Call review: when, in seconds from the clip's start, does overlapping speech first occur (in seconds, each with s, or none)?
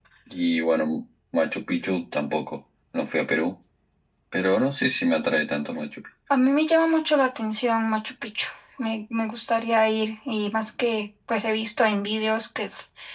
none